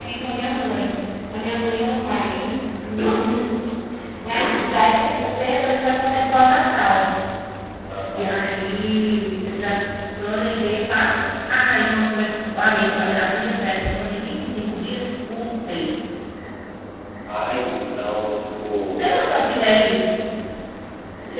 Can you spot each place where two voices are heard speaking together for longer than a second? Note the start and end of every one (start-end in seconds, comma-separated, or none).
none